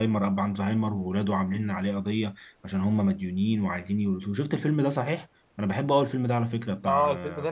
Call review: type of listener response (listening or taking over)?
taking over